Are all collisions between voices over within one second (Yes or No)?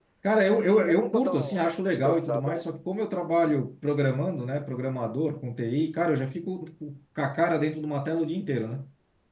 No